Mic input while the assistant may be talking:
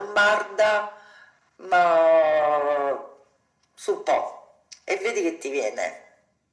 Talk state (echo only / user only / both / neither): echo only